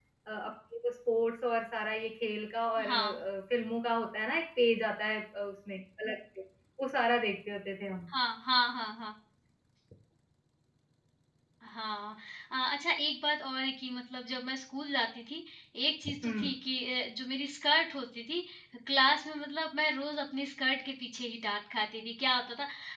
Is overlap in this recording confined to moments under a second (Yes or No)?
Yes